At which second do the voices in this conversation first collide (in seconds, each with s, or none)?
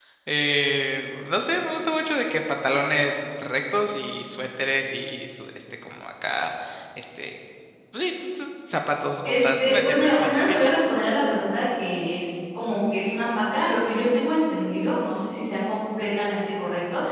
9.2 s